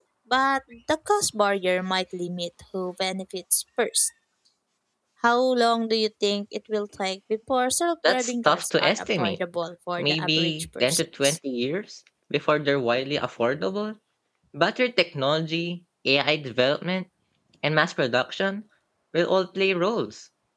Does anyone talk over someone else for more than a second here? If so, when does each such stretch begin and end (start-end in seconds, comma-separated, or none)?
8.1-9.4, 10.0-11.4